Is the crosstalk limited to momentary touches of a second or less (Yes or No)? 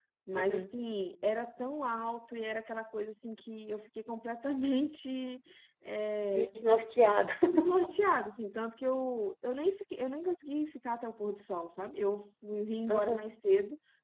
Yes